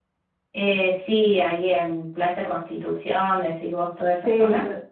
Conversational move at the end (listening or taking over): taking over